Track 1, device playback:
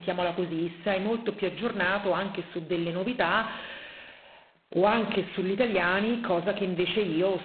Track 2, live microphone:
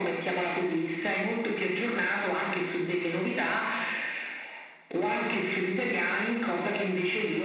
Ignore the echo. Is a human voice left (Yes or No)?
No